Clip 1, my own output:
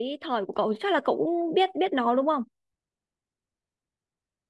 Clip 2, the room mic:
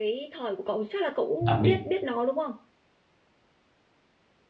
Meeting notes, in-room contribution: present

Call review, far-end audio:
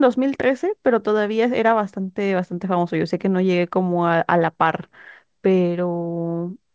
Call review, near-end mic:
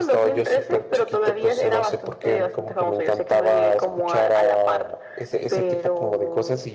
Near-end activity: present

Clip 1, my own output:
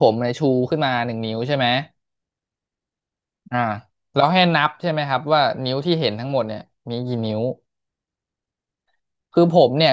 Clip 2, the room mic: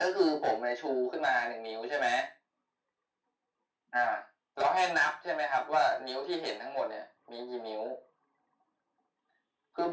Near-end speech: none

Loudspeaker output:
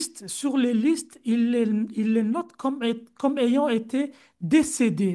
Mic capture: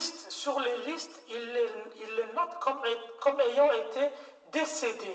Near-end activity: none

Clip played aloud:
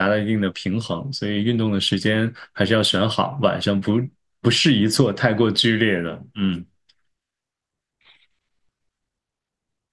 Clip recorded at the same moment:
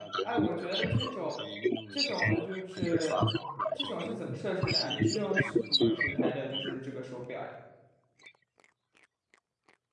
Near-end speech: present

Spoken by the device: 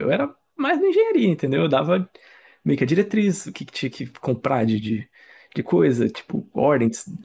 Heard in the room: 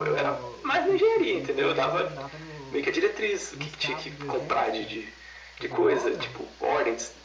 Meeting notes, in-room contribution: present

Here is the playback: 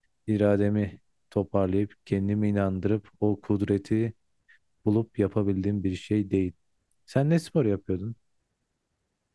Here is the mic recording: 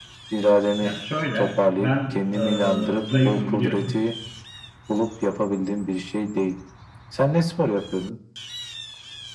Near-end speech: present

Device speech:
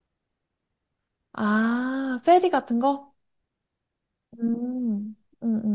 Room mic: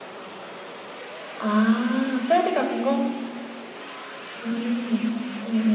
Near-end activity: none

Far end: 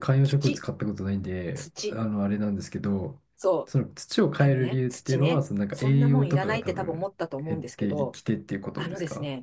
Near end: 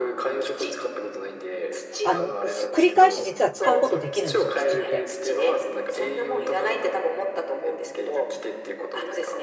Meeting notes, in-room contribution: present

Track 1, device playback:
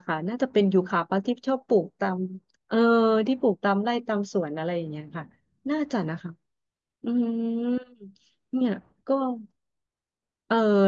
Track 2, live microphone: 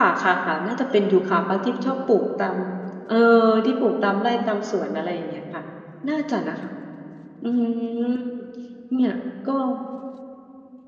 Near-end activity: none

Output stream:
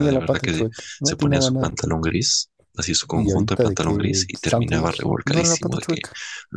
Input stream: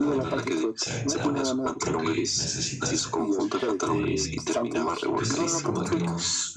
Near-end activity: present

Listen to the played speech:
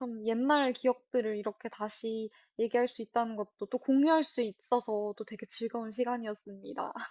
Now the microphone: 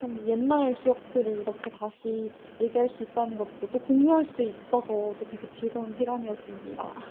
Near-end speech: none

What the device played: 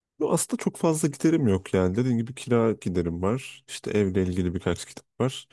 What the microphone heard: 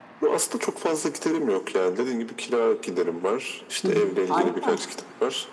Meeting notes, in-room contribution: present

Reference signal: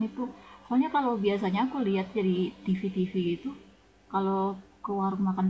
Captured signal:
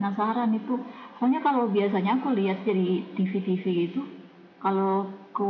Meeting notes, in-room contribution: none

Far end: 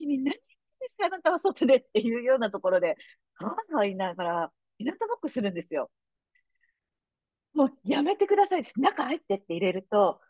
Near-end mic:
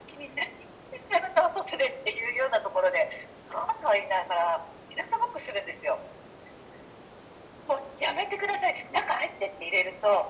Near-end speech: none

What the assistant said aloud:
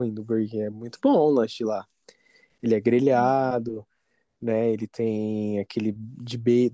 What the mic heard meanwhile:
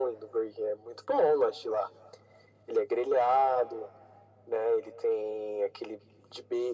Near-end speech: none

